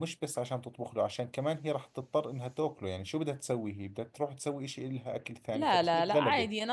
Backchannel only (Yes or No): No